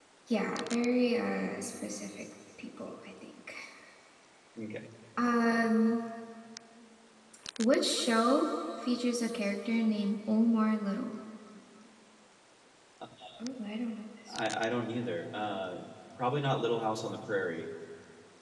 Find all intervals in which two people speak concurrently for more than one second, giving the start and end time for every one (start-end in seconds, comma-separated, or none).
none